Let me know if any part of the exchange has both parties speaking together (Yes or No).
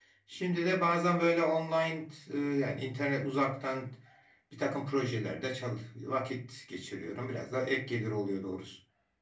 No